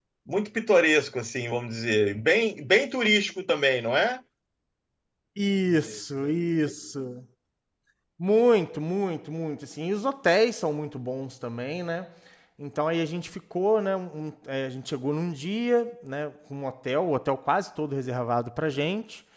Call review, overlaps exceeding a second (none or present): none